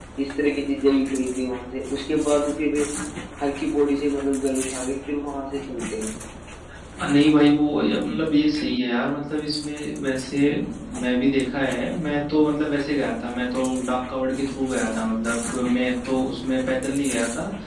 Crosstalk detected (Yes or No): No